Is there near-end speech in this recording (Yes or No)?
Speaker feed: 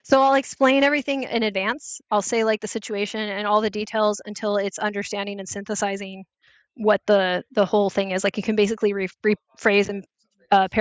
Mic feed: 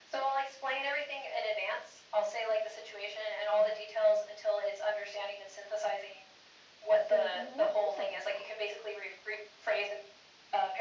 Yes